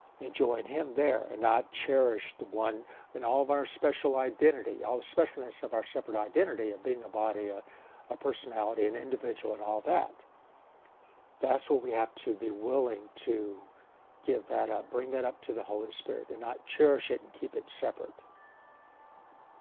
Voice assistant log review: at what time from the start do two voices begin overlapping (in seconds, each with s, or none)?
none